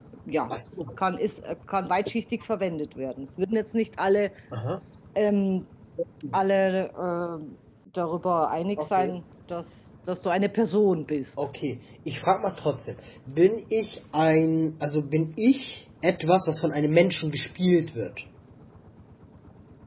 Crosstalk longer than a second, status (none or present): none